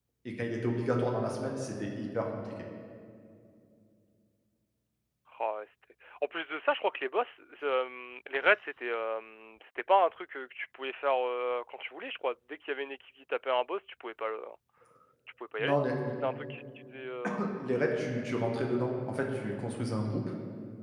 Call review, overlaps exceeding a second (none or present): none